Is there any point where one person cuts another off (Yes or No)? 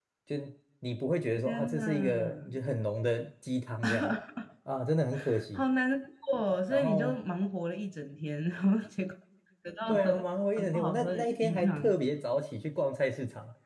Yes